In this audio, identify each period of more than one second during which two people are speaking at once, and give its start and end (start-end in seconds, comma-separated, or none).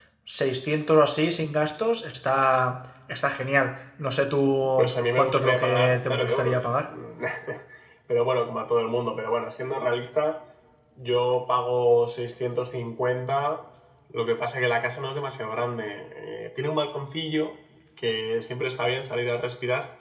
4.8-6.9